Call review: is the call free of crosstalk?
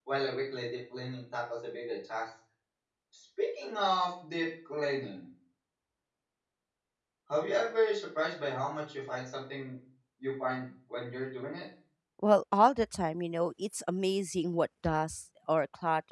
Yes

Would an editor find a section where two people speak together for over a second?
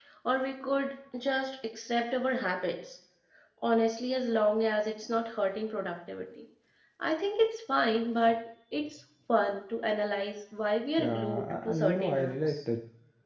Yes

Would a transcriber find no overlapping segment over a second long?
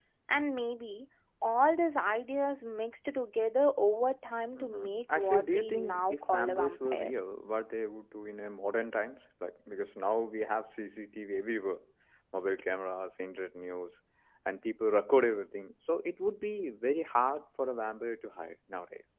No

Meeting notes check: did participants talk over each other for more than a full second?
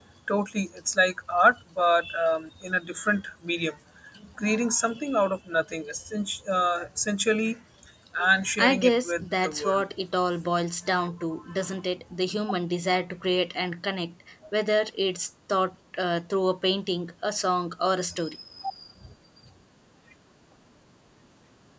Yes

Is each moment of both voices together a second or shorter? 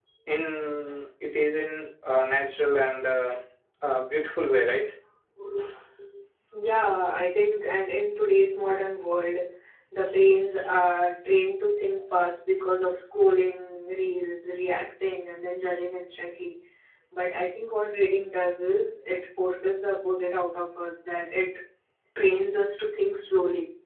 Yes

